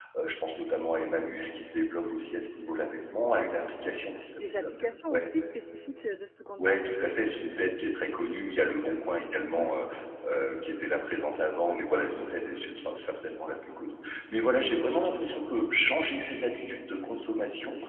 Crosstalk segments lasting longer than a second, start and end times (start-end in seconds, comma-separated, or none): none